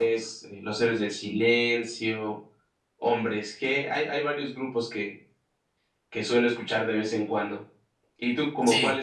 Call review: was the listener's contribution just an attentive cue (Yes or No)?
Yes